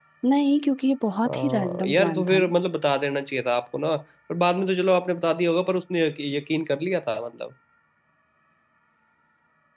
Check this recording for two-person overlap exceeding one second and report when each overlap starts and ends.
1.2-2.5

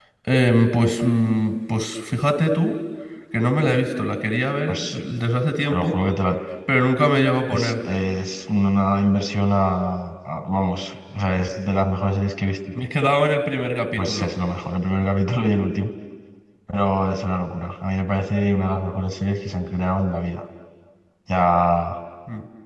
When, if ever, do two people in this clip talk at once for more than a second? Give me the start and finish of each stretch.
none

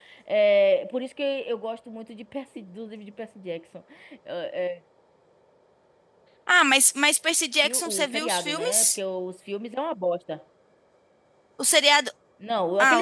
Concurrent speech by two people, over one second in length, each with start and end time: 7.6-9.0

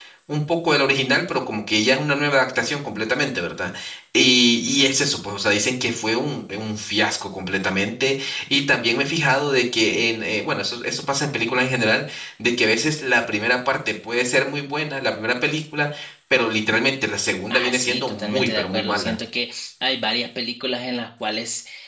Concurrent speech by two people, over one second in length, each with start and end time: 17.5-19.1

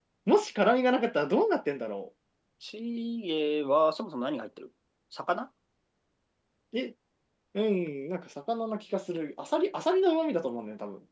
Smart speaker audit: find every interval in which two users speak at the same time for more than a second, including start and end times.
none

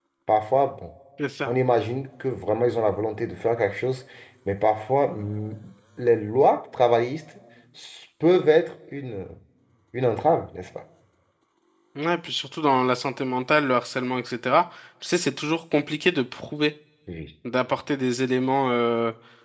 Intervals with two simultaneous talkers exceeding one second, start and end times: none

